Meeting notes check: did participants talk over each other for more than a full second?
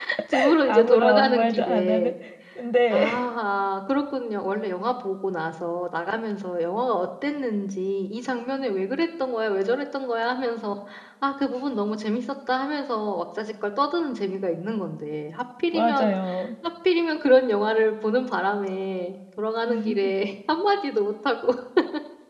Yes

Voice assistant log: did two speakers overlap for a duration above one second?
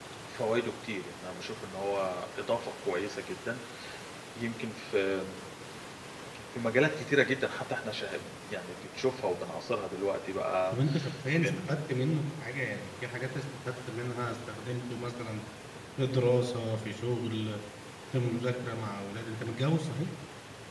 No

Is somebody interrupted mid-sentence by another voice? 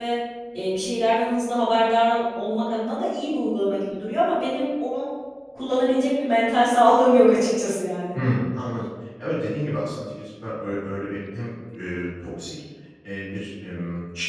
No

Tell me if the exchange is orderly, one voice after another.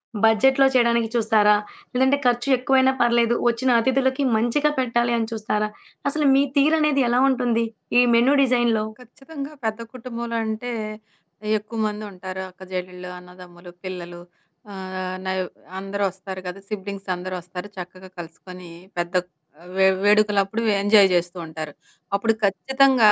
Yes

